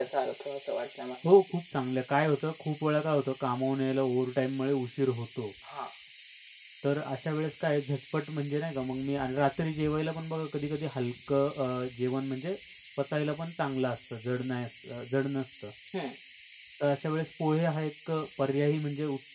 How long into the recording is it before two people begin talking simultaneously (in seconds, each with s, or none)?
none